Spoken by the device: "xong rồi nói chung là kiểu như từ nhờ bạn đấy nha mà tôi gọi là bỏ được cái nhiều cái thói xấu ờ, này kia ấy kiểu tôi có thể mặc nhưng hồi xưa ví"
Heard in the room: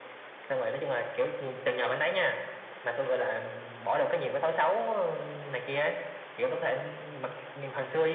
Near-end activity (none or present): none